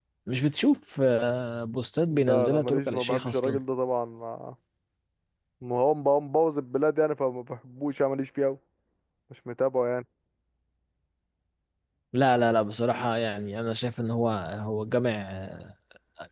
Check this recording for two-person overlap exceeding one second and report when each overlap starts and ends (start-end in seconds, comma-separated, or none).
2.1-3.6